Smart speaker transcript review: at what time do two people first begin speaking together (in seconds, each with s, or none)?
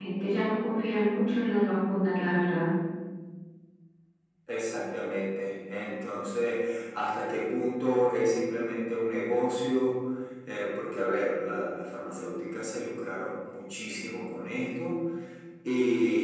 none